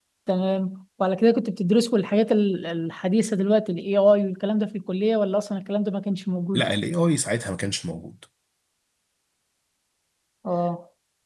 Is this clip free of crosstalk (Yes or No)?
Yes